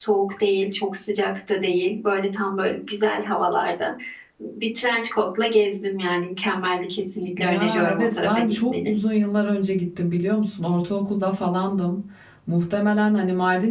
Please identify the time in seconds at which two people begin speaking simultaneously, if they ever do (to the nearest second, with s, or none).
7 s